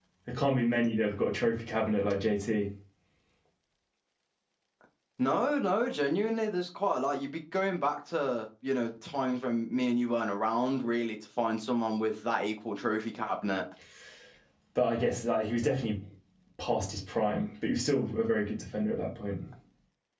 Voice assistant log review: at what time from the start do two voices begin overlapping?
none

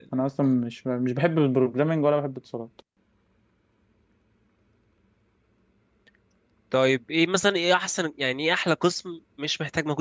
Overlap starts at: none

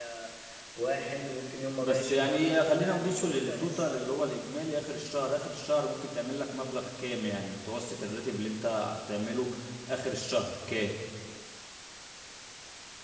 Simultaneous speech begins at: 1.8 s

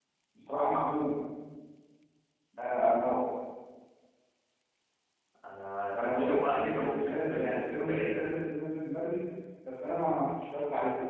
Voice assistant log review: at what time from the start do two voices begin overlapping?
5.9 s

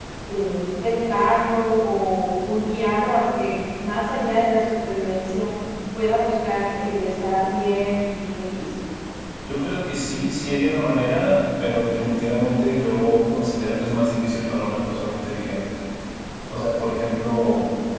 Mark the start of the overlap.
none

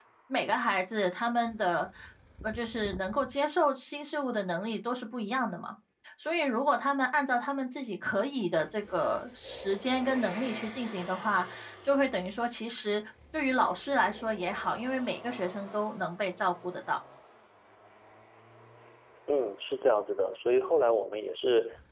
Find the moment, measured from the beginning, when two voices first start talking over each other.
none

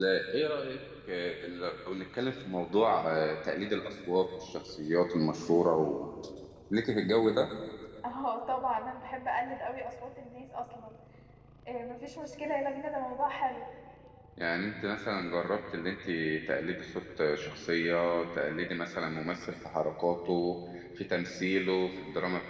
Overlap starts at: none

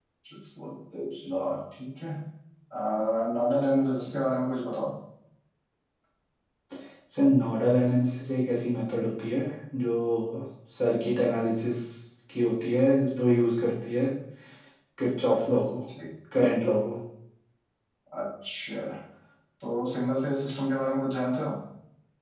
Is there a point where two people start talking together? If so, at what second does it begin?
none

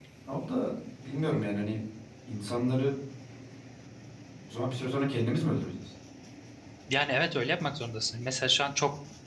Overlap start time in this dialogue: none

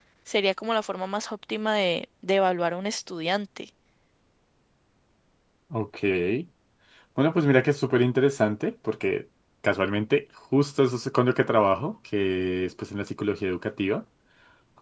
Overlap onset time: none

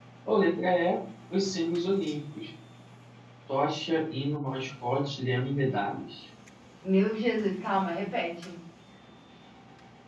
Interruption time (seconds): none

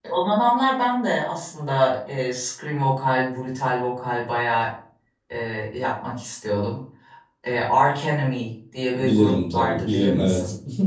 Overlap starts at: 8.9 s

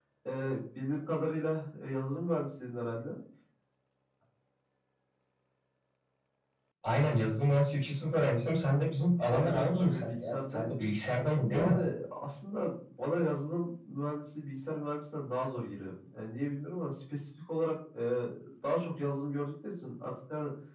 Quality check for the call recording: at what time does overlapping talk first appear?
9.3 s

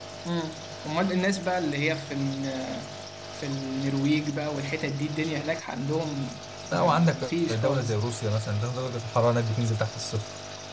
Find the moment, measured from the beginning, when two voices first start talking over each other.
6.7 s

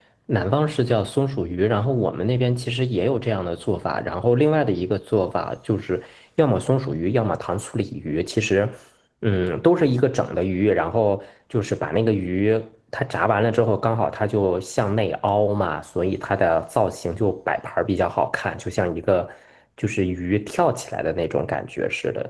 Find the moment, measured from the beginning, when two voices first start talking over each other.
none

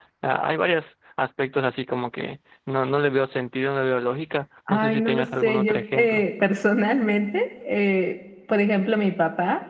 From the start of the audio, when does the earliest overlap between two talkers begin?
4.7 s

